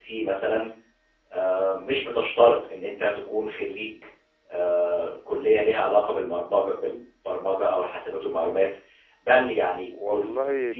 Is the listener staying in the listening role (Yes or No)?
Yes